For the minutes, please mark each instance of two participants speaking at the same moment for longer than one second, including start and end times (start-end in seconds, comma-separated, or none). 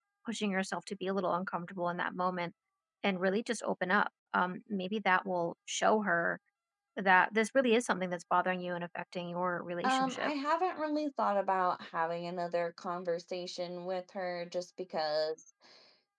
none